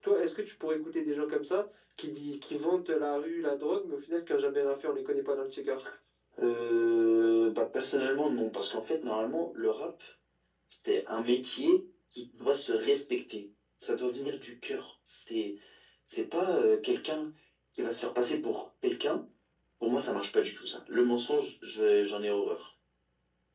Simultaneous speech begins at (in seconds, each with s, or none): none